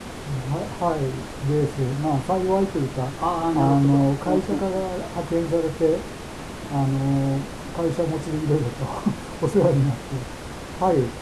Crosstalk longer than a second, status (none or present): present